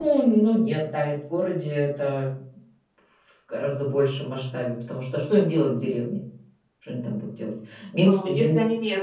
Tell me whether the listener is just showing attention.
No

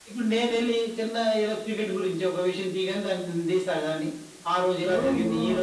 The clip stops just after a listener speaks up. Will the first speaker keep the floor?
Yes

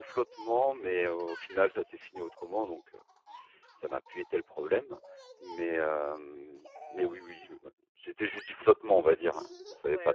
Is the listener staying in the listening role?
No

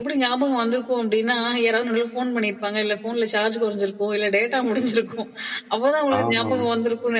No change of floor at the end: Yes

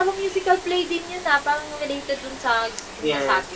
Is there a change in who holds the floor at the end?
Yes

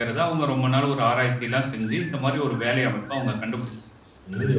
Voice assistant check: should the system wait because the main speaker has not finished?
No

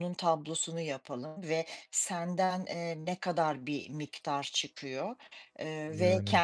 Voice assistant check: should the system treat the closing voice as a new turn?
No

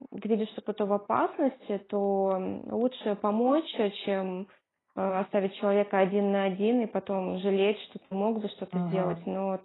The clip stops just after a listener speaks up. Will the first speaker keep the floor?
Yes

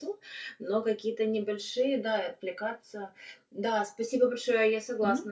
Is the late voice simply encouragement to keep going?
Yes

